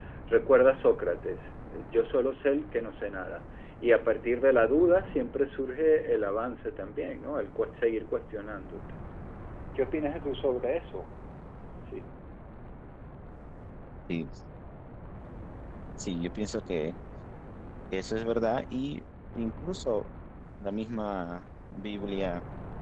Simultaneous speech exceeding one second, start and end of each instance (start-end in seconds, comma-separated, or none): none